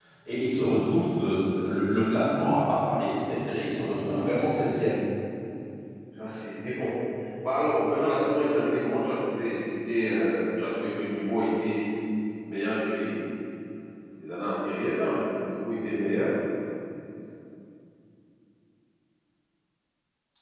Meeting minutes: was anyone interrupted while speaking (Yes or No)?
Yes